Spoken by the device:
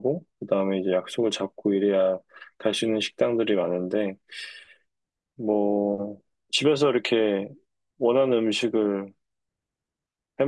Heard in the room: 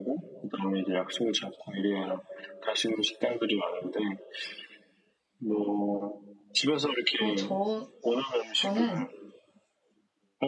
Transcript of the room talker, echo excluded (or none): 어, 저, 저는